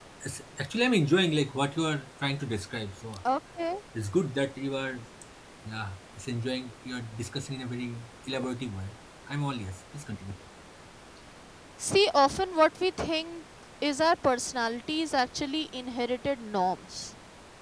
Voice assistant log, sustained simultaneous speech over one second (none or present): none